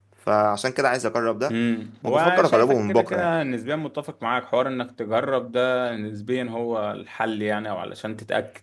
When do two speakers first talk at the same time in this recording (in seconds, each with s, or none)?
2.0 s